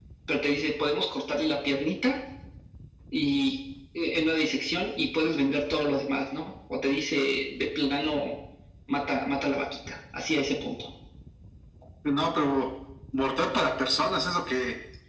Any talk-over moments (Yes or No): No